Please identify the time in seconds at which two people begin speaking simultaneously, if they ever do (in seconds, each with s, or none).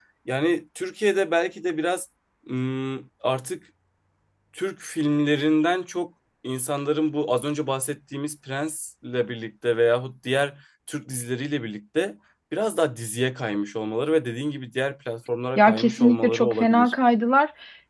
15.6 s